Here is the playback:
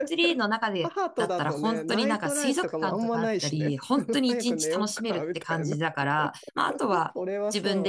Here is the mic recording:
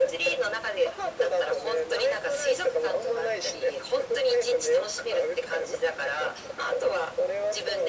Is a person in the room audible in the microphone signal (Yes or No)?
No